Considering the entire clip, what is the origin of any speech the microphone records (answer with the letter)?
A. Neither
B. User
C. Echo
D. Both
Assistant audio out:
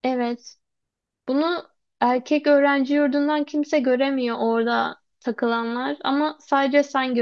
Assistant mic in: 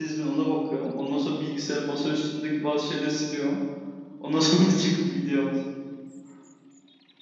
B